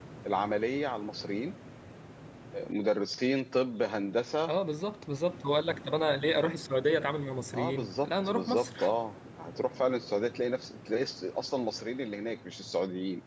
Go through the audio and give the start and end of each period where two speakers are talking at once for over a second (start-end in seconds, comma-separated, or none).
7.5-8.9